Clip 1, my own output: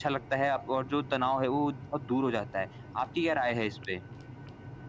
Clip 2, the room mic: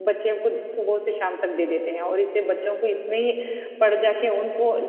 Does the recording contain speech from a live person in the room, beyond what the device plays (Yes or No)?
Yes